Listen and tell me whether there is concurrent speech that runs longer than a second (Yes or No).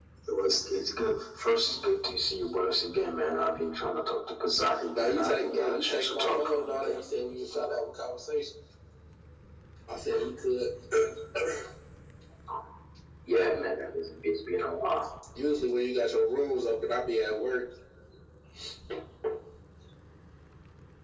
Yes